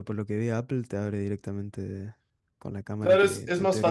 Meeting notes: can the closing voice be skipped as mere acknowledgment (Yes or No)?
No